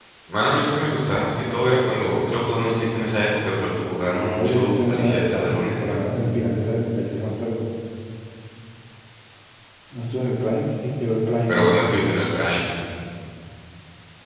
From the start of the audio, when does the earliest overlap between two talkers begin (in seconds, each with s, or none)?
4.3 s